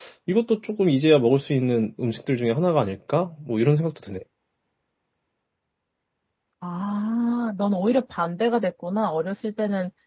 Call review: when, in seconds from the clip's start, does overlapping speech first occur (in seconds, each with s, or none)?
none